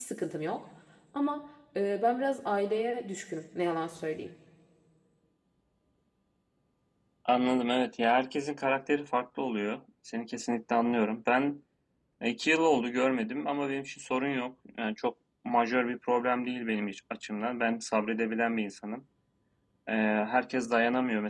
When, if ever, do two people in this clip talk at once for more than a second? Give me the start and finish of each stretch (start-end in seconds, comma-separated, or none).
none